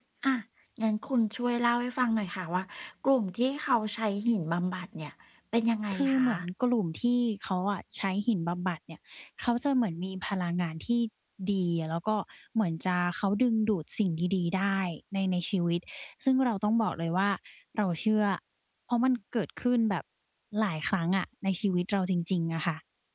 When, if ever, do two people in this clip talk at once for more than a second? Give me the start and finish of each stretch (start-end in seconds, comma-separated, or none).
none